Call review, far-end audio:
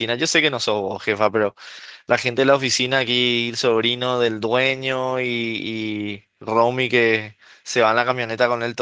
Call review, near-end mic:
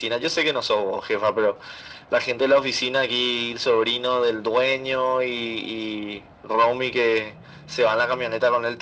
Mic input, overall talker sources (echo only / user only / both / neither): echo only